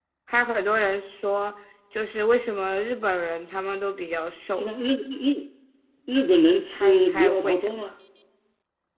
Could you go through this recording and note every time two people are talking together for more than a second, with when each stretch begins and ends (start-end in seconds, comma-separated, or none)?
6.7-7.9